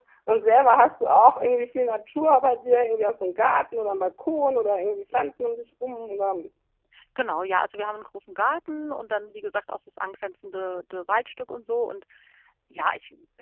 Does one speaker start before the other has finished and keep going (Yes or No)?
No